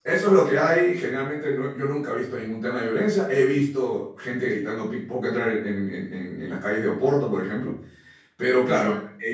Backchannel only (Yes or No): Yes